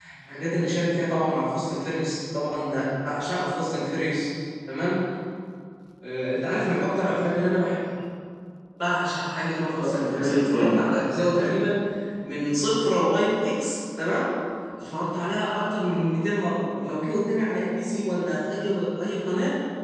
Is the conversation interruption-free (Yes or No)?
No